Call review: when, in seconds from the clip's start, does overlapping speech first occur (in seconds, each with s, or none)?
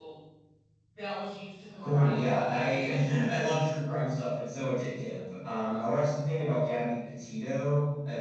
1.8 s